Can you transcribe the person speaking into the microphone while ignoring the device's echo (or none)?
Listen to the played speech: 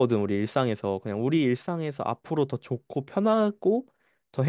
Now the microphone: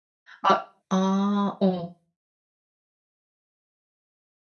아, 아, 어.